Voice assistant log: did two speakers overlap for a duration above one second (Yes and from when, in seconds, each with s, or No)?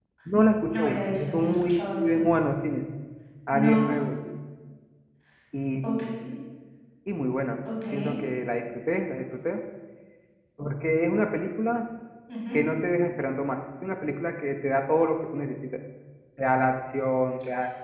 Yes, from 0.7 s